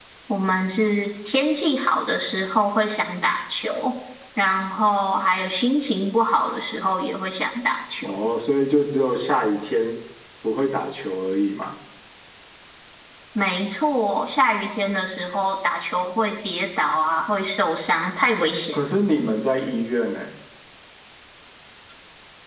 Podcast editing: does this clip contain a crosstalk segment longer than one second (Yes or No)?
No